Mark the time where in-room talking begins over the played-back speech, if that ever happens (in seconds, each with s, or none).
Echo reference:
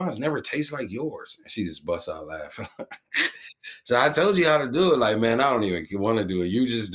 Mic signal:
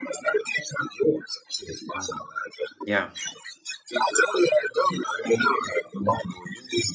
1.9 s